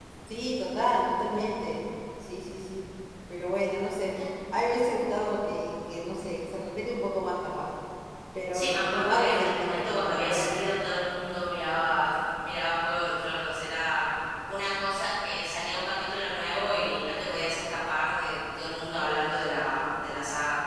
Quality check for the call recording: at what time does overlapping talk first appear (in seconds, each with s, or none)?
8.5 s